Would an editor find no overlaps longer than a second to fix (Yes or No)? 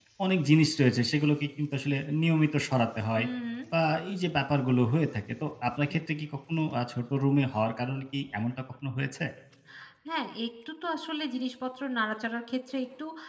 Yes